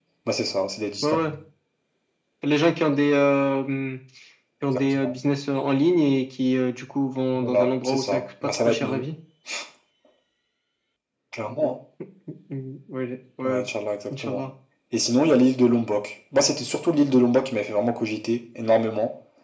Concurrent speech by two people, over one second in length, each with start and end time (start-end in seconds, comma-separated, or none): 7.4-9.0